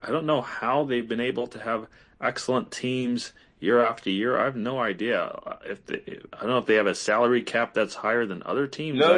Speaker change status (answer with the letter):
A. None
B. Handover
B